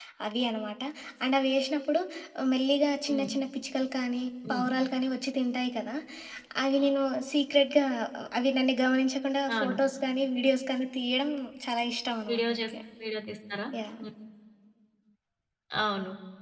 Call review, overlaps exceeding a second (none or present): none